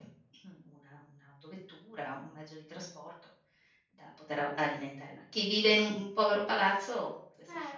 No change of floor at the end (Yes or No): No